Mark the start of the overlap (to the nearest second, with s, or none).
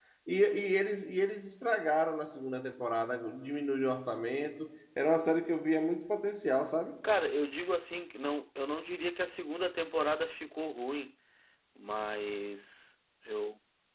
none